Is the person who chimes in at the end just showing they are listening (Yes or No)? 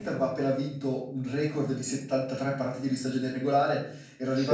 Yes